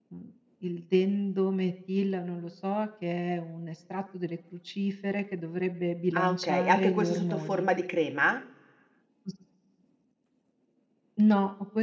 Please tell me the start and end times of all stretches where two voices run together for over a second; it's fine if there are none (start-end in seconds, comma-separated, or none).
6.1-7.7